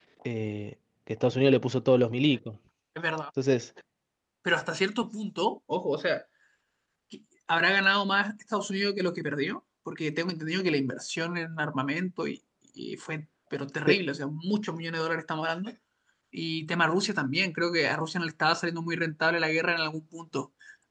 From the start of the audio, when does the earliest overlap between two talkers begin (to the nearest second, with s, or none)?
none